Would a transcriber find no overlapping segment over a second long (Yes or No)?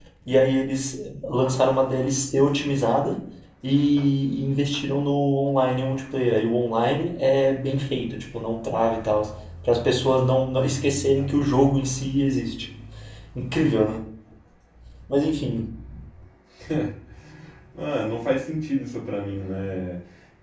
Yes